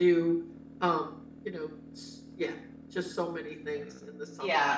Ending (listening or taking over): taking over